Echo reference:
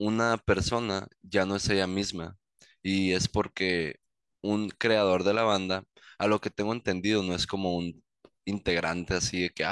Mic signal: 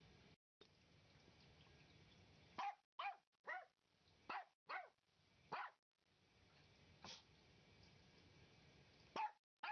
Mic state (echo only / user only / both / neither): neither